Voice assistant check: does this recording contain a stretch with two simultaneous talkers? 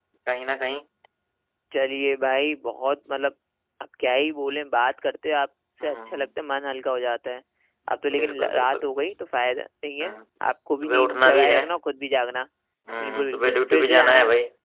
Yes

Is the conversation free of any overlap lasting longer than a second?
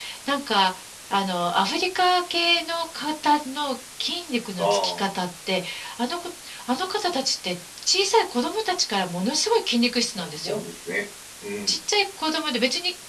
Yes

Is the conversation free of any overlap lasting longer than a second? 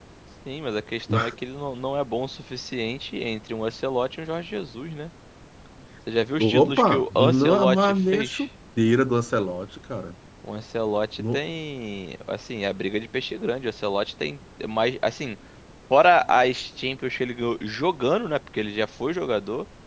No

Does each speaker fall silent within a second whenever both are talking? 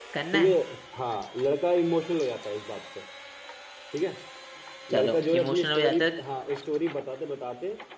No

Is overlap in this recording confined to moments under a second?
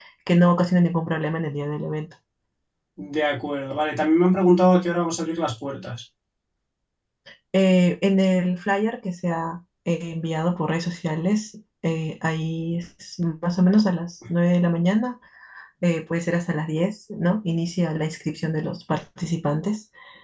Yes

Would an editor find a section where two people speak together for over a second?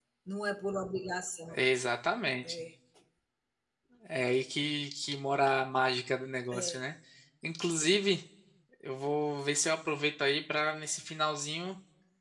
No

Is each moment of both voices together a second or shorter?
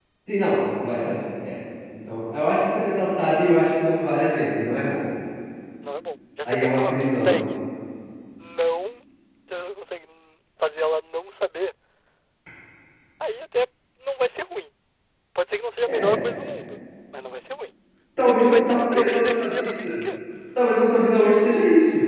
No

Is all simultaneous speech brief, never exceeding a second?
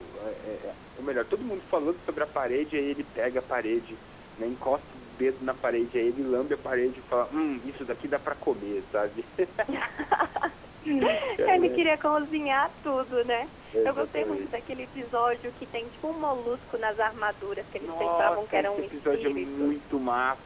No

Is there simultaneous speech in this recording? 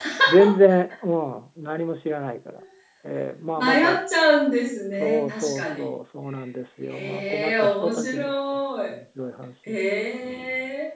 Yes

